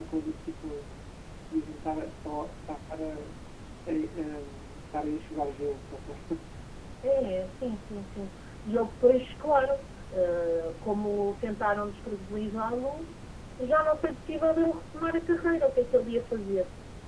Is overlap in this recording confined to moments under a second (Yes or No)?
Yes